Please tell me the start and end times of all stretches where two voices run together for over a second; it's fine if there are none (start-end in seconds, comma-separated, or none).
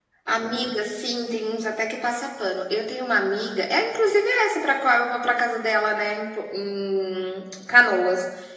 none